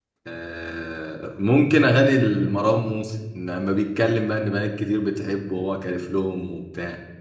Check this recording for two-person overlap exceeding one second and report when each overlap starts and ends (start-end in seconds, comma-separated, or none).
none